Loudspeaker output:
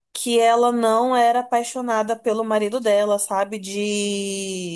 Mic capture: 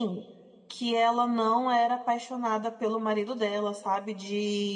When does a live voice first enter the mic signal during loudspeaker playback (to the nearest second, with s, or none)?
none